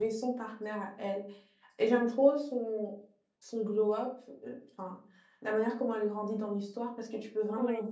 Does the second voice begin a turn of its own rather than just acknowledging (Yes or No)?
No